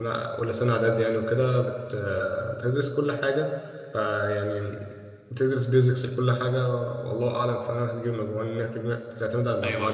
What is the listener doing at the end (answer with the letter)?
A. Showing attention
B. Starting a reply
B